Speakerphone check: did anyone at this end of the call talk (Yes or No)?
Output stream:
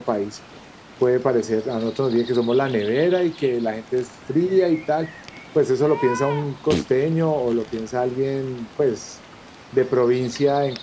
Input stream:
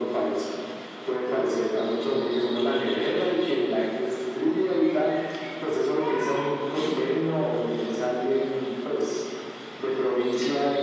No